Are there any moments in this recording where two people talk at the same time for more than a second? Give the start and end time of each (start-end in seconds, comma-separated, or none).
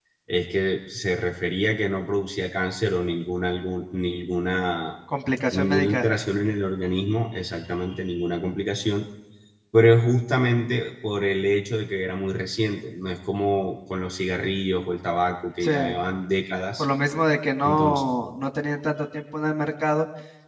none